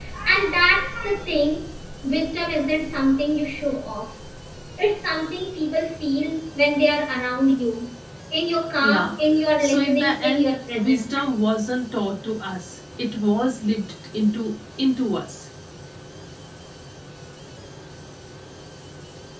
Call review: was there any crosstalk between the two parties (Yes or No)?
Yes